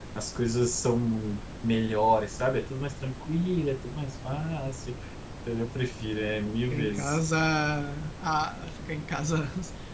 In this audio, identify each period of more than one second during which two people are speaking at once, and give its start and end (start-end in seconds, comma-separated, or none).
none